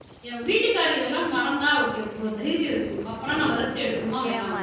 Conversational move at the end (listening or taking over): taking over